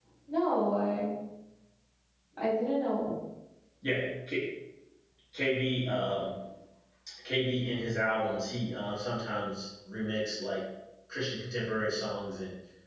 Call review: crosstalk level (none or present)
none